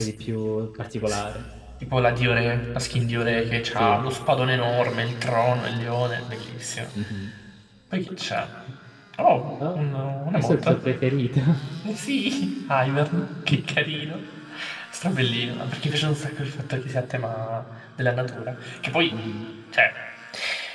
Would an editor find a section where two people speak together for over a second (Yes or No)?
No